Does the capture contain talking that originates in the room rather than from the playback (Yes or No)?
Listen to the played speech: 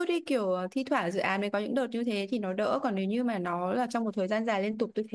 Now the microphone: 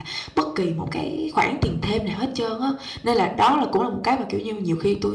Yes